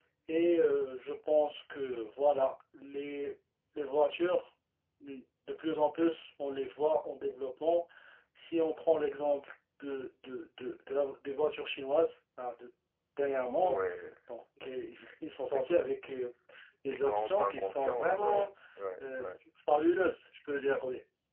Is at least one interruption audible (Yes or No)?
Yes